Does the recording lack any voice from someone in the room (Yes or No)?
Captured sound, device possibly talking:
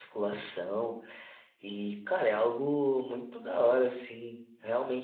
No